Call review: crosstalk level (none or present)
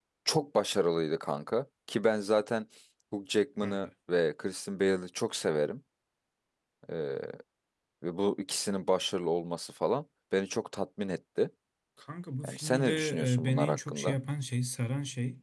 present